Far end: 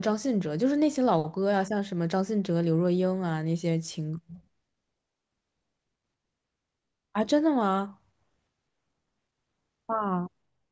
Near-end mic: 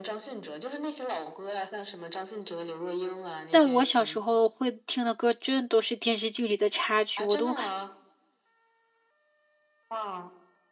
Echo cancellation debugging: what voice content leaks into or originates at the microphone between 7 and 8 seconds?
both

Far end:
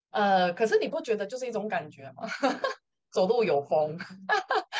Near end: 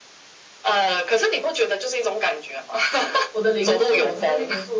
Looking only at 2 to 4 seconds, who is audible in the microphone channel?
both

